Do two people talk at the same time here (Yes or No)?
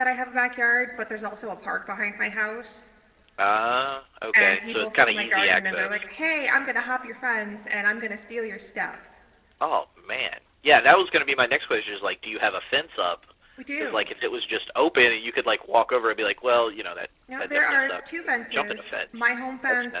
Yes